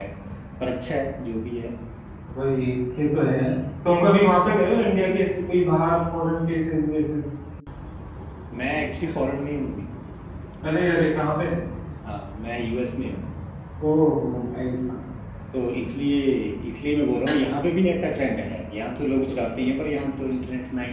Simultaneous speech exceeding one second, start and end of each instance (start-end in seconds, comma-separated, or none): none